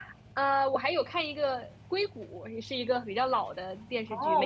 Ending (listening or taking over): taking over